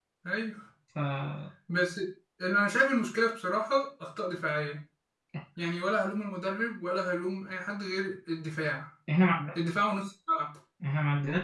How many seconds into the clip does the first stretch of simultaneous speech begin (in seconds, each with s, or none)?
none